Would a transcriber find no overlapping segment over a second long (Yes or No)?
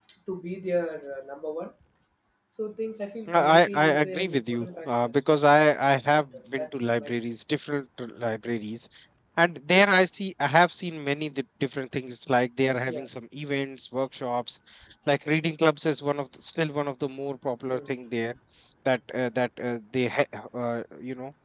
No